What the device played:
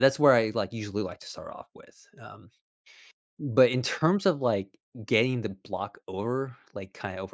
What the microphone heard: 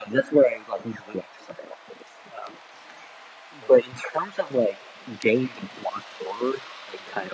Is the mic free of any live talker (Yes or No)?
Yes